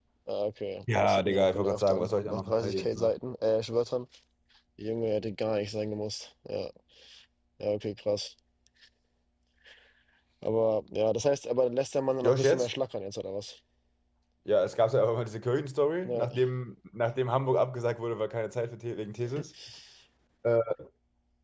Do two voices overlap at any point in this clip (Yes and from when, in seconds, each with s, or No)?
Yes, from 0.9 s